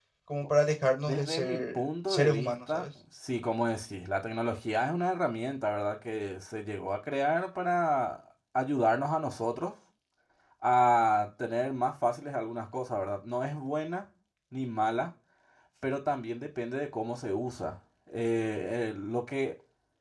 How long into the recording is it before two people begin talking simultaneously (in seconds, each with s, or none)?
1.0 s